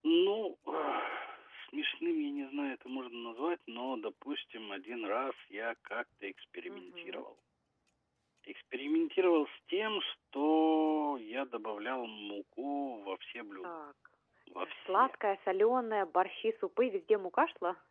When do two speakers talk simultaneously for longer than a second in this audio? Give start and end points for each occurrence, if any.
none

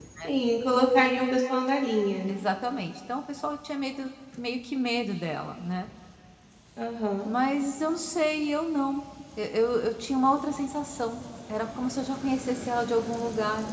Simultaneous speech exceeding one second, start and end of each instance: none

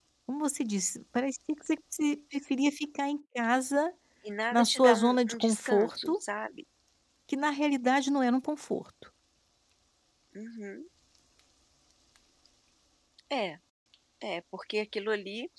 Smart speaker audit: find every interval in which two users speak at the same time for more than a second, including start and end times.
4.5-6.2

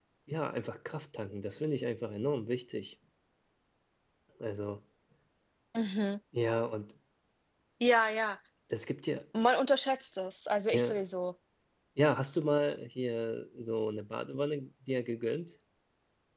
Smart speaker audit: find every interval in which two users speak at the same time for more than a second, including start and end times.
none

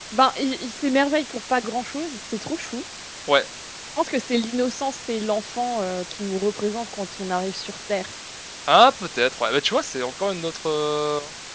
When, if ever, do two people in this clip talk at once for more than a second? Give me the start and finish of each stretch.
none

